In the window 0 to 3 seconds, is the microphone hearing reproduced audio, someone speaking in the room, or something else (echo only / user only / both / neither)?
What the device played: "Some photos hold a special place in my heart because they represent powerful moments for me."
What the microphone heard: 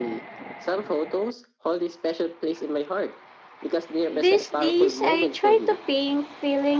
echo only